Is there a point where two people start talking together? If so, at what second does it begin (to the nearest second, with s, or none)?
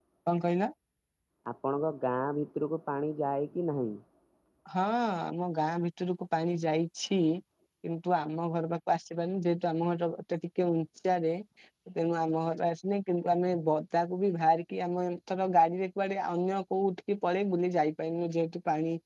none